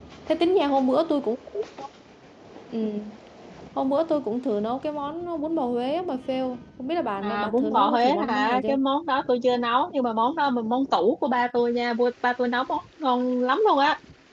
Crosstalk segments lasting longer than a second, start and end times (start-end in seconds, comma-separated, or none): 7.2-8.8